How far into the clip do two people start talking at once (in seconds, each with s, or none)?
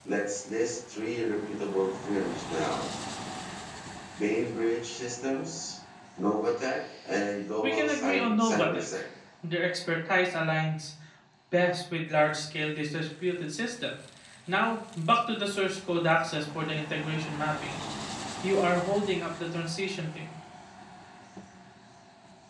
7.6 s